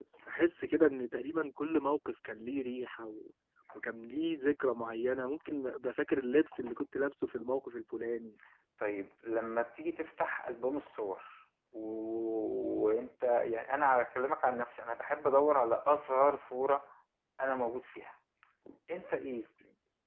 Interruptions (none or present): none